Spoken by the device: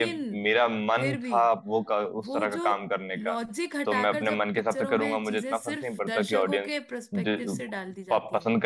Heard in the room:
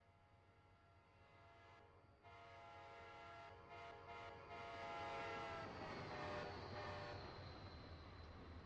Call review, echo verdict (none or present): none